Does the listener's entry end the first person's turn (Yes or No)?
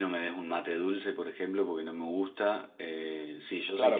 Yes